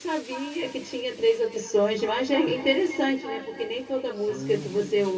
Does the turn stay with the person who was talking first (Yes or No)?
Yes